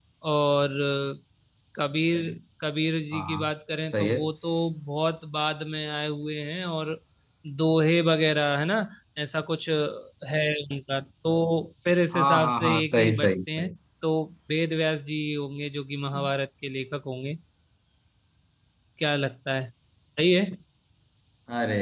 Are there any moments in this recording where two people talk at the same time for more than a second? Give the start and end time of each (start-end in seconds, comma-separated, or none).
12.1-13.8